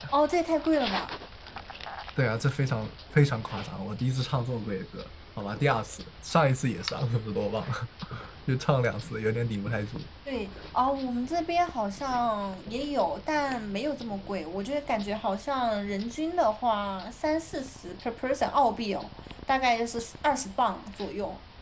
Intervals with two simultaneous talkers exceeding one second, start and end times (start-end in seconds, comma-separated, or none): none